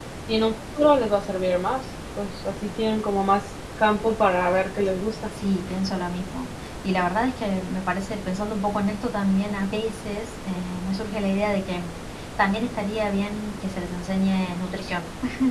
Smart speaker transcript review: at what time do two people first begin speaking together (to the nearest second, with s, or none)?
none